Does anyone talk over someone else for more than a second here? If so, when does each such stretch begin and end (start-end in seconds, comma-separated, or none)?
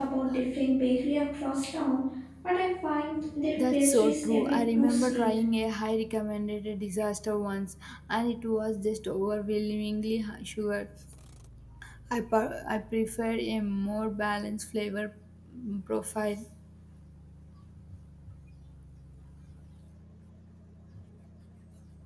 3.7-5.4